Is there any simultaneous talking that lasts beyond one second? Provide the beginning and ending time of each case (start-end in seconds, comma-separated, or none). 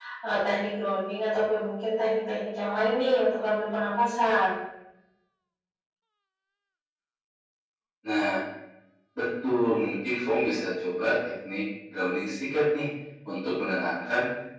none